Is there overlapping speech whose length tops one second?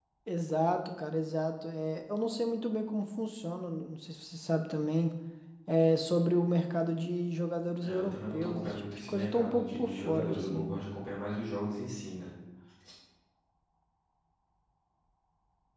Yes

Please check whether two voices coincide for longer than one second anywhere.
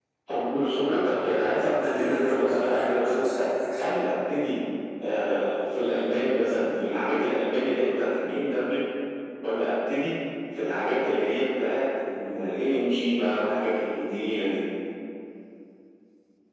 Yes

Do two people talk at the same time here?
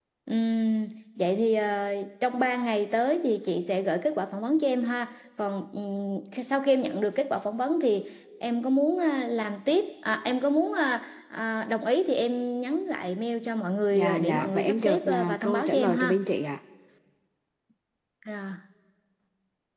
Yes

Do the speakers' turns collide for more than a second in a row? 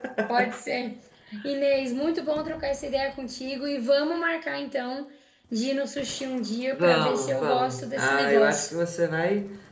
Yes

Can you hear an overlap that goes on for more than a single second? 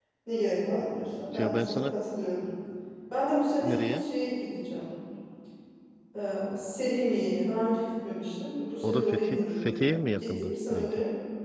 Yes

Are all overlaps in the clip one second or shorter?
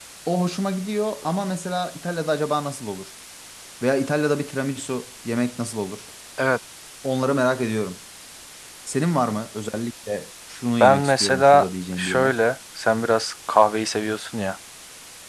No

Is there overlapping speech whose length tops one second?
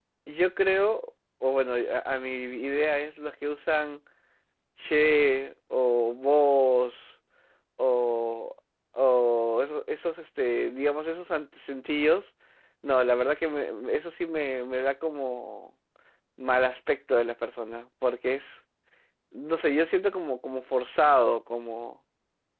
No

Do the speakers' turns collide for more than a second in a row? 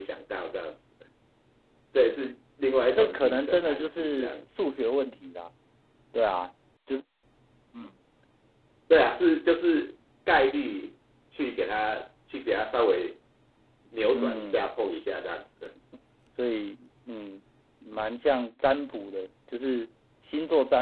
Yes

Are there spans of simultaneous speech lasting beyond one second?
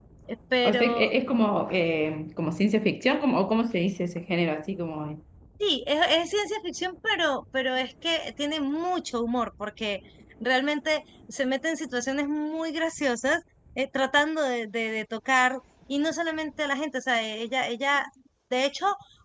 No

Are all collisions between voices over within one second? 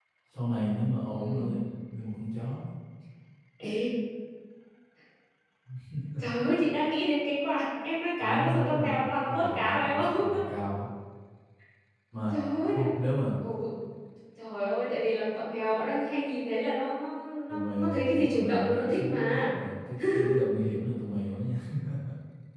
No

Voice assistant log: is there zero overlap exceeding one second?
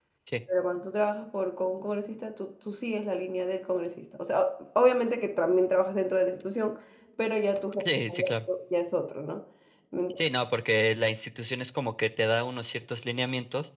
Yes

